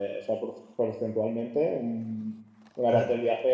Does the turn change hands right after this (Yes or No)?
No